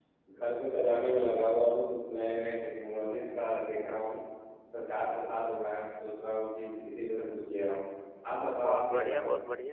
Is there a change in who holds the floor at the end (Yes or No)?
Yes